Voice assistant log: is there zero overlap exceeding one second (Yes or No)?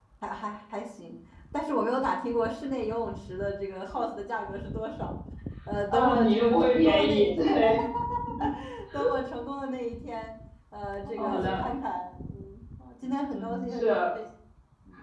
No